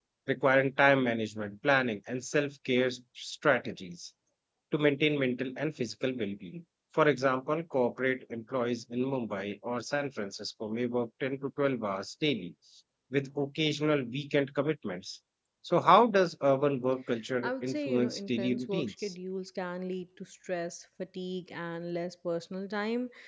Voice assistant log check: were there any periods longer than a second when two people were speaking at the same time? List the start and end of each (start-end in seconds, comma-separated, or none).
17.4-19.1